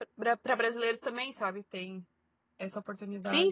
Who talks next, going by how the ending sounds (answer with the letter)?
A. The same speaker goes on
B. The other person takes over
B